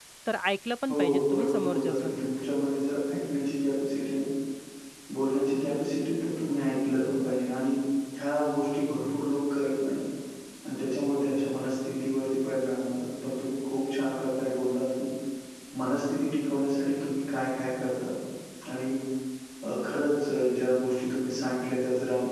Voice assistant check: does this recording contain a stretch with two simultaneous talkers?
Yes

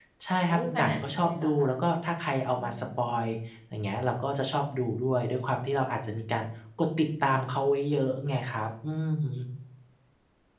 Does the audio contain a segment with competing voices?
Yes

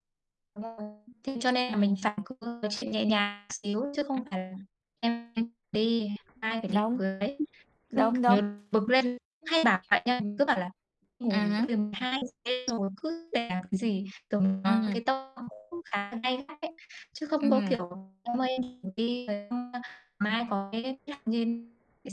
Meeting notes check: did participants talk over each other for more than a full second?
No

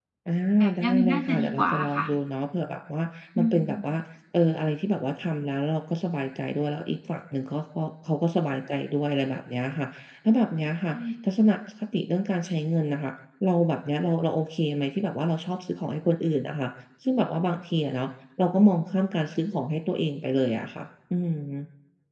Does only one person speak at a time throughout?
No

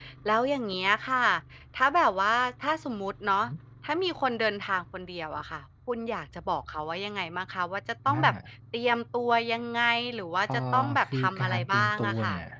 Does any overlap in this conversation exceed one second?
Yes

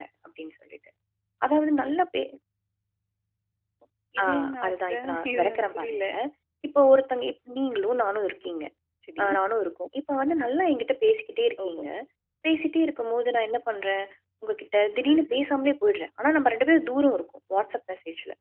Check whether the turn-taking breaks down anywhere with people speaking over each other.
Yes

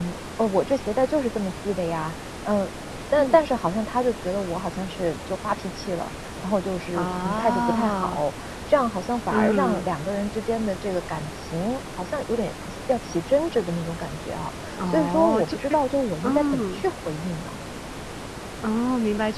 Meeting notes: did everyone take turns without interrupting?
No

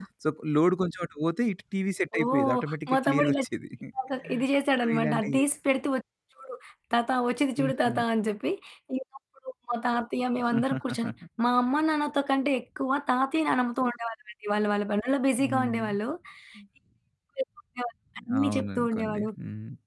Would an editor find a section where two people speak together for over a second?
Yes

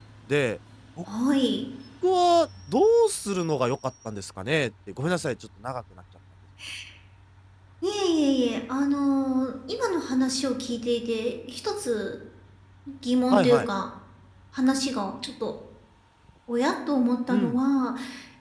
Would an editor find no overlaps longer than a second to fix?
Yes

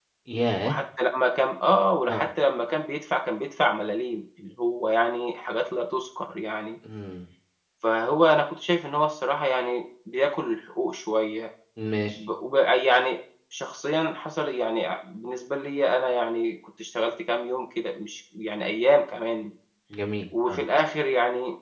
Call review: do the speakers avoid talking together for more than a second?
Yes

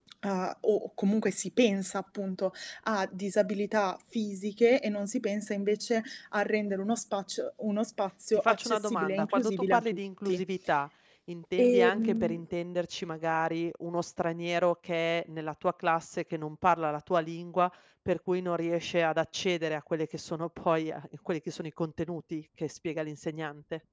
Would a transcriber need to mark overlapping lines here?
Yes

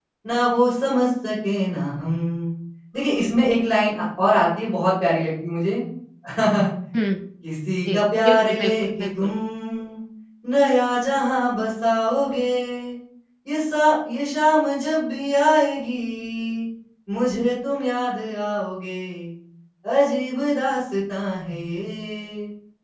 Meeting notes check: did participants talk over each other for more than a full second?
Yes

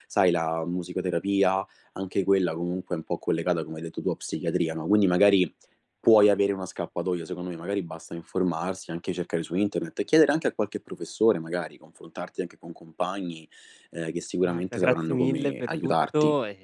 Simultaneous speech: Yes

